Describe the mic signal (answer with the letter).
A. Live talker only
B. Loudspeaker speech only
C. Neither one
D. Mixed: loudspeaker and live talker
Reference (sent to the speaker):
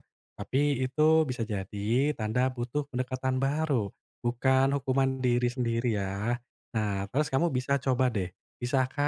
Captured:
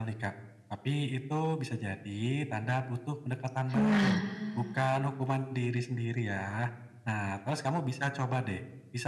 D